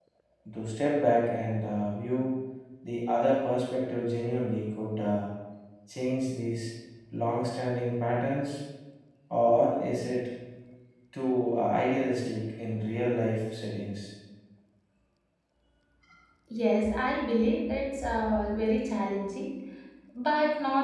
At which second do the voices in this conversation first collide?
none

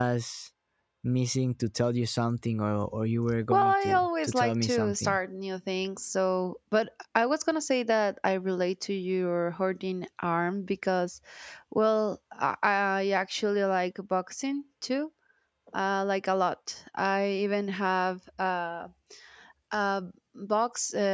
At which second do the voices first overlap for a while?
4 s

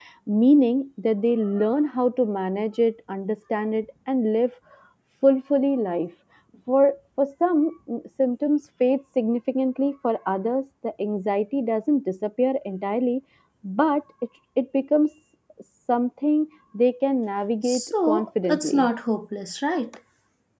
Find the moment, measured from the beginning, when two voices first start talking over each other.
18 s

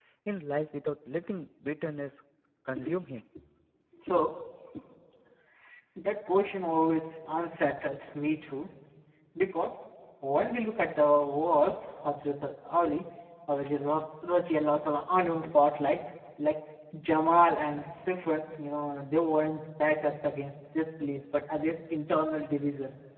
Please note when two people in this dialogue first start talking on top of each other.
none

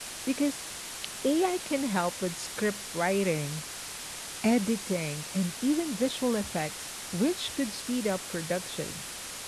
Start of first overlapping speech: none

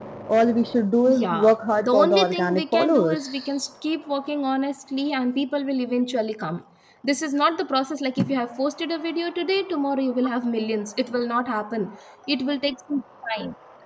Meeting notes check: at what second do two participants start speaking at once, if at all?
1 s

